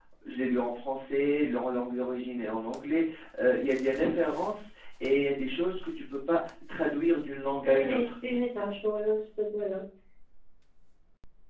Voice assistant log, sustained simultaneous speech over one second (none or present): none